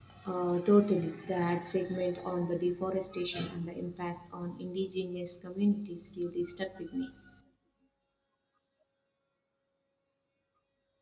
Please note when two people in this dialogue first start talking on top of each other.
none

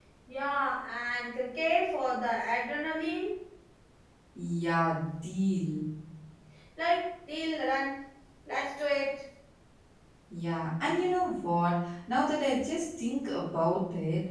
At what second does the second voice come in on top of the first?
none

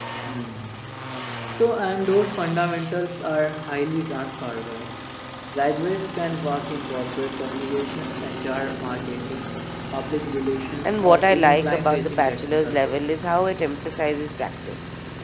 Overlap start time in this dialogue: 11 s

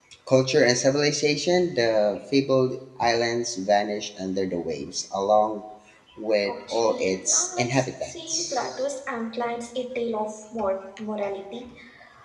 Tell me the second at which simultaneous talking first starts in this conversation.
6 s

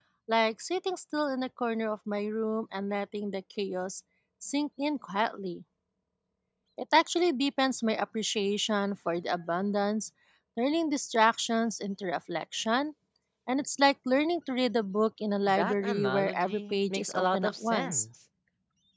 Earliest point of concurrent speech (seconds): 15 s

